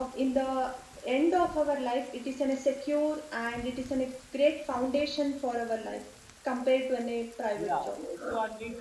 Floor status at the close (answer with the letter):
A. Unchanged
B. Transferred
B